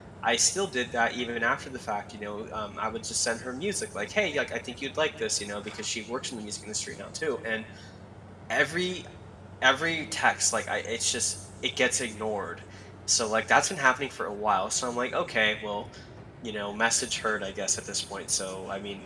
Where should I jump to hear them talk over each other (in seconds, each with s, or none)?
none